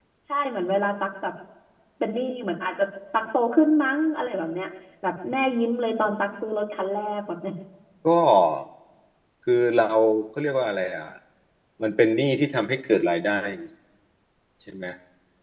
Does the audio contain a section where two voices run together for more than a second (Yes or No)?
No